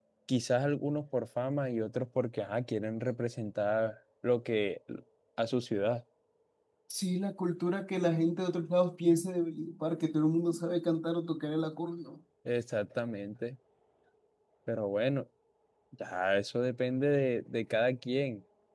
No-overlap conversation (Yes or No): Yes